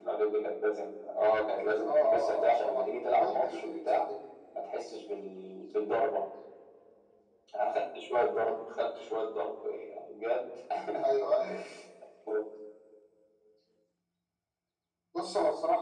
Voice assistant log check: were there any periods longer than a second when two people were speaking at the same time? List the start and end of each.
1.9-4.0

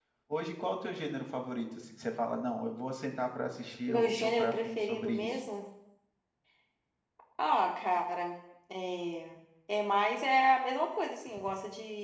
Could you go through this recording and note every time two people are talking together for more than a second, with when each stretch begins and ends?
3.9-5.4

